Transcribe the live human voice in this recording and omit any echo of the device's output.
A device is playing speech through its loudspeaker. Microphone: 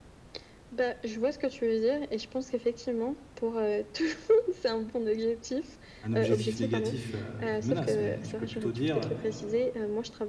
un objectif négatif, heu, avec une menace, mais tu peux plutôt dire, heu

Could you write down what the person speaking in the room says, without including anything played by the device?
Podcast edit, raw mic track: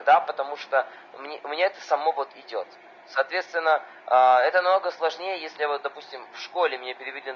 none

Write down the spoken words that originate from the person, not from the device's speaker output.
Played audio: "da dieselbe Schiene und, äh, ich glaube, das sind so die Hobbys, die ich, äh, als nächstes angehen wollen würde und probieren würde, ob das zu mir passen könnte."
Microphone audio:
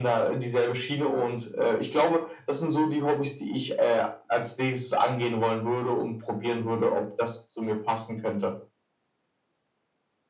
none

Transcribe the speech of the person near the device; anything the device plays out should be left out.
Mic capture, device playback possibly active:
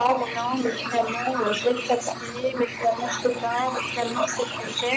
none

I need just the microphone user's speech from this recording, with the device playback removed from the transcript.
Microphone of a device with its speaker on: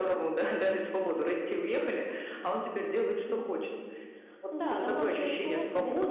none

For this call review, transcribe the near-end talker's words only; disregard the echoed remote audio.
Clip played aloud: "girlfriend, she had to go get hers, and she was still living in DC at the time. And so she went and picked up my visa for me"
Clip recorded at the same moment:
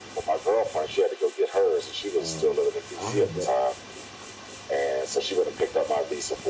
Um, I had that,

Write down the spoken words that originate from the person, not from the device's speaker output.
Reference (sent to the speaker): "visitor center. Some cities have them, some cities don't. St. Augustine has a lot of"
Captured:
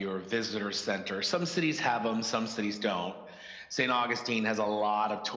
none

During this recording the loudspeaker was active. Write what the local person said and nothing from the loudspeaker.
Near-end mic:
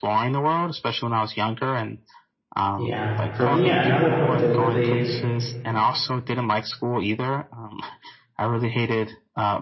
Yeah. For me, another book that really

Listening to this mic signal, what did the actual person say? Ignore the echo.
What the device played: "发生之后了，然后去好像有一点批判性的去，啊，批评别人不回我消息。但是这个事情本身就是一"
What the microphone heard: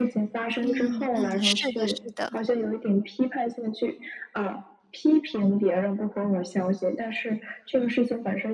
嗯嗯，是的是的。

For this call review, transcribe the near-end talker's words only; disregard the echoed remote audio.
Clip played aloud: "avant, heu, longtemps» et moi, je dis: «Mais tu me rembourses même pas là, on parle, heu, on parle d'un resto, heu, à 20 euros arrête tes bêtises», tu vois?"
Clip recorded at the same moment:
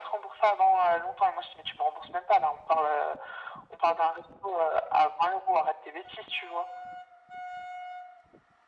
none

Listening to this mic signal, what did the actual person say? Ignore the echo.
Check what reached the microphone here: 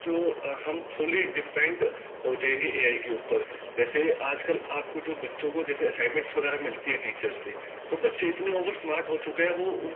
none

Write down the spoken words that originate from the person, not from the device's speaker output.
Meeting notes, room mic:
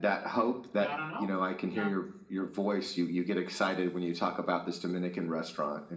so i don't know uh,

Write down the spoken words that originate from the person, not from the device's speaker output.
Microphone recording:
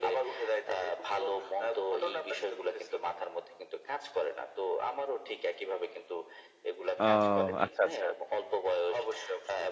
ও আচ্ছা, আচ্ছা।

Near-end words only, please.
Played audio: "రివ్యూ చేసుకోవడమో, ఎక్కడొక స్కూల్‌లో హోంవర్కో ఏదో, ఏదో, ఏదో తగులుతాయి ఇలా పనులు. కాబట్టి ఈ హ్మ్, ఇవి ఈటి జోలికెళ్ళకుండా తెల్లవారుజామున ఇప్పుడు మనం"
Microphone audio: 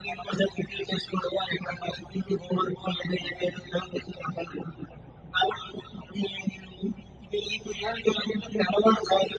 none

